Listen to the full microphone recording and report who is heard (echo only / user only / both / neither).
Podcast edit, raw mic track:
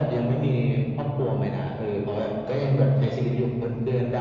echo only